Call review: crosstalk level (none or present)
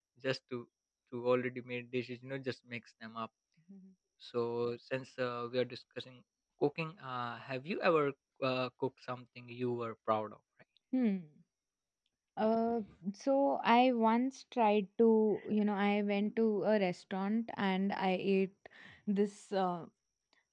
none